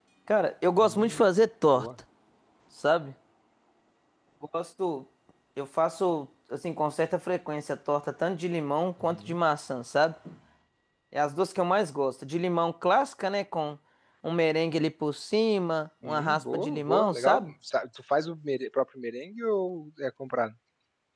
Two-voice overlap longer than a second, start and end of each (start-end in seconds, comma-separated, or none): 16.1-17.5